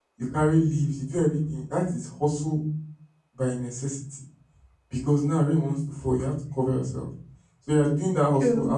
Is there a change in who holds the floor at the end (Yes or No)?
No